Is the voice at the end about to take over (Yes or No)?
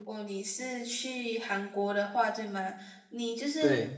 No